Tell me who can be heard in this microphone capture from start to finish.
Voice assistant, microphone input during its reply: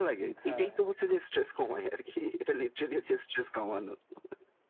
both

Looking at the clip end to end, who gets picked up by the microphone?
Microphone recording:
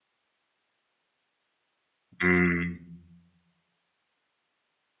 user only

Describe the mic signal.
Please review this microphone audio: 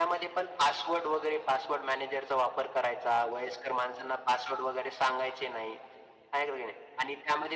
echo only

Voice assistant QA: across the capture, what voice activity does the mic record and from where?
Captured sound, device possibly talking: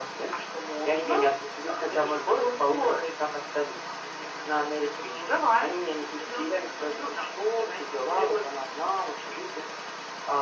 echo only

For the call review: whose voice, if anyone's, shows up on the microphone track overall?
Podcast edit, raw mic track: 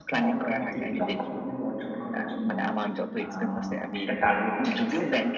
both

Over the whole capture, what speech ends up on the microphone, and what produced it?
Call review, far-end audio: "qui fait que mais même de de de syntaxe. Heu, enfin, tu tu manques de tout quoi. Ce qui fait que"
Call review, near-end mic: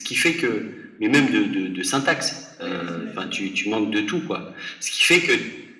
both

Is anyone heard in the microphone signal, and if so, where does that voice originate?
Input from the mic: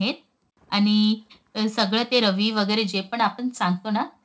echo only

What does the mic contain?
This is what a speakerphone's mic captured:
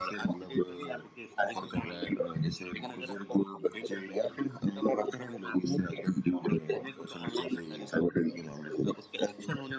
echo only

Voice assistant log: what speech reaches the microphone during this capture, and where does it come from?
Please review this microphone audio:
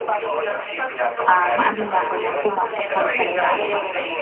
both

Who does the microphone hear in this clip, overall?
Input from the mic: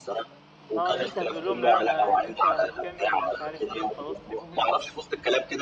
both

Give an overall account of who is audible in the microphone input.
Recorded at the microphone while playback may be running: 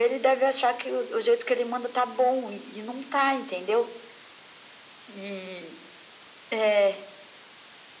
echo only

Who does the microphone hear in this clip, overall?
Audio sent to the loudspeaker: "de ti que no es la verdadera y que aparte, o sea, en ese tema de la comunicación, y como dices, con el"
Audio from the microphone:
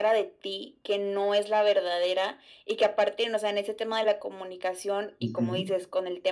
both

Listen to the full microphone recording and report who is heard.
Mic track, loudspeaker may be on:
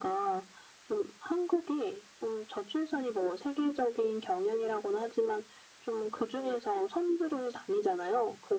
echo only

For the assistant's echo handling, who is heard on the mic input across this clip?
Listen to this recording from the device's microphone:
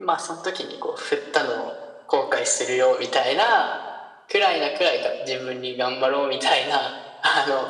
echo only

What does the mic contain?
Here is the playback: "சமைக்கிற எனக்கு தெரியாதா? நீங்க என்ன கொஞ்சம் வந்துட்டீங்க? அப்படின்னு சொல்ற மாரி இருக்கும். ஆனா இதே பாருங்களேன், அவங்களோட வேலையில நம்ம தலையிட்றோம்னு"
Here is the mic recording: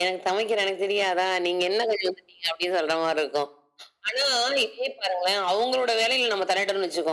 echo only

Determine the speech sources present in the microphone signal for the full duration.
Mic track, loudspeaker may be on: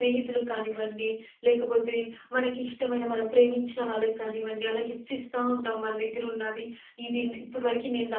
user only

